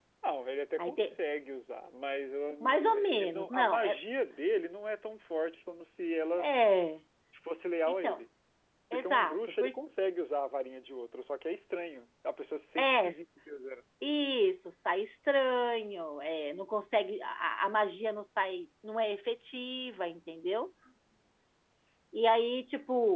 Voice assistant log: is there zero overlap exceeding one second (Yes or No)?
No